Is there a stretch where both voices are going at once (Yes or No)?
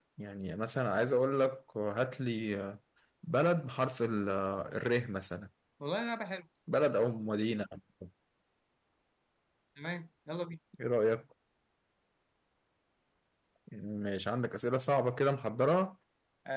No